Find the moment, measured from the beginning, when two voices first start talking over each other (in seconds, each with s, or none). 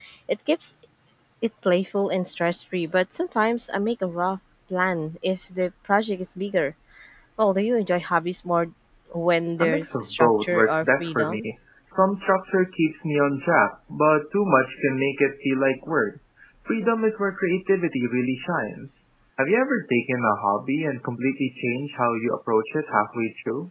9.6 s